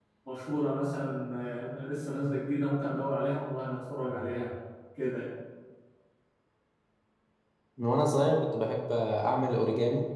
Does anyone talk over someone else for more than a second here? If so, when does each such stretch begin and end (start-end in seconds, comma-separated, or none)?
none